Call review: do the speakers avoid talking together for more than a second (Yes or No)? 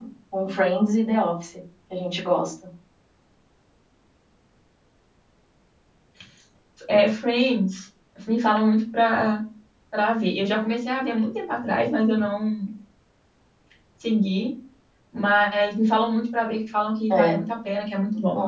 Yes